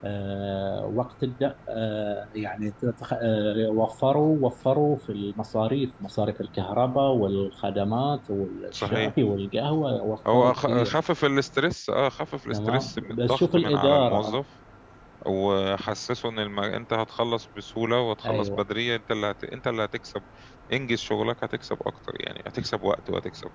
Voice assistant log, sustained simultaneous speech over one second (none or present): present